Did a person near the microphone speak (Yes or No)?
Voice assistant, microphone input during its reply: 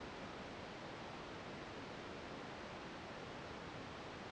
No